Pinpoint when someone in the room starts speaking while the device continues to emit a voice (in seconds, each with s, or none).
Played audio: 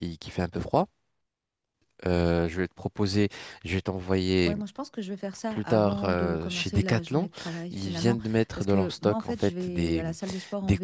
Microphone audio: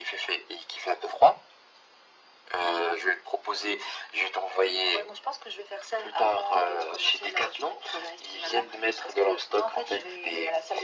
none